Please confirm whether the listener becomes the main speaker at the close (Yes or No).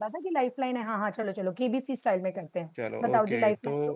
Yes